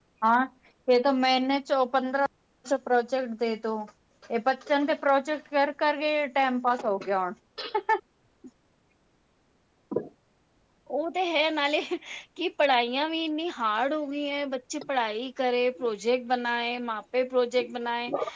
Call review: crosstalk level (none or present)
none